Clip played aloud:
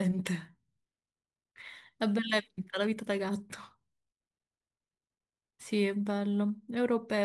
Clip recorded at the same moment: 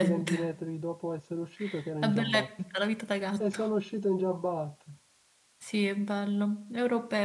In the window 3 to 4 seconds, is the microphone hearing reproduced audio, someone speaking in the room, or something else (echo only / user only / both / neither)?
both